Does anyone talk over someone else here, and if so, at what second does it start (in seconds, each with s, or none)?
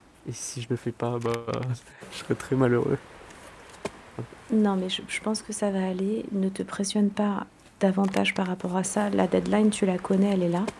none